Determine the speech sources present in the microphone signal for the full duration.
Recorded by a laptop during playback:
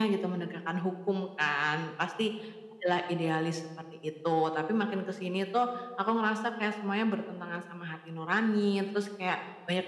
echo only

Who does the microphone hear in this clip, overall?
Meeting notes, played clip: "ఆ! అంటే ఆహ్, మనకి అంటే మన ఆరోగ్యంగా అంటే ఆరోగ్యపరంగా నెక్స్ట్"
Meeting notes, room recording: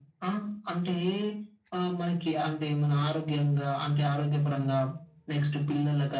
echo only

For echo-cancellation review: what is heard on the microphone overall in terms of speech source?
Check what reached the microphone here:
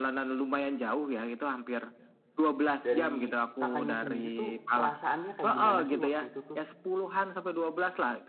both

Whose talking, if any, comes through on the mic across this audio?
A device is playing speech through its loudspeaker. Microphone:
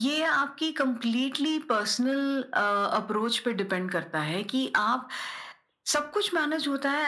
echo only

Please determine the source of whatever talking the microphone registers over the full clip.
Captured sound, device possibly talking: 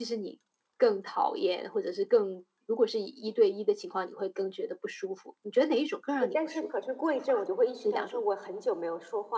both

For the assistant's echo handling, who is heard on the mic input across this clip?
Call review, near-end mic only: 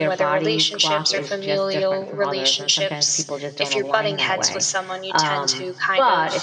both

